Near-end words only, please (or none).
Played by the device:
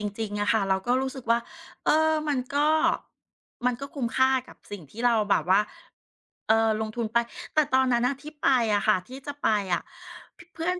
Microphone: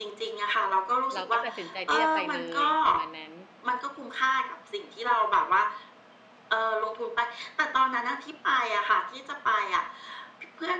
เราก็ตัดสินใจที่จะไปเลยประมาณนั้น